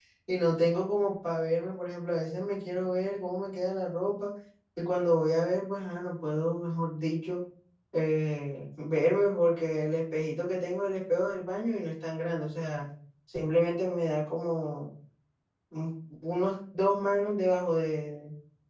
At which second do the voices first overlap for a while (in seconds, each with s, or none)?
none